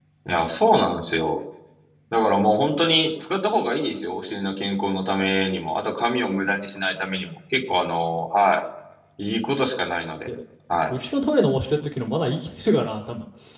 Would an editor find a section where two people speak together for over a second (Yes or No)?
No